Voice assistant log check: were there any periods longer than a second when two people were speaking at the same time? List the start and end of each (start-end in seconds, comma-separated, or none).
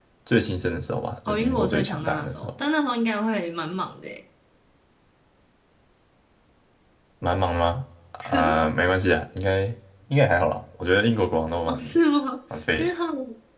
1.3-2.5